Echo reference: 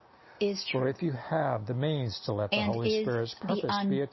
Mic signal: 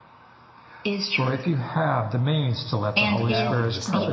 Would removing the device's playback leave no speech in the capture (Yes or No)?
No